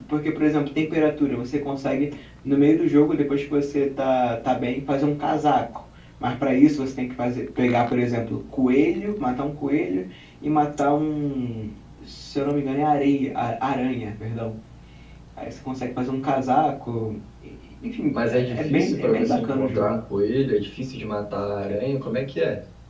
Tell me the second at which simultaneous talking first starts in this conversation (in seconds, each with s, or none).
18.1 s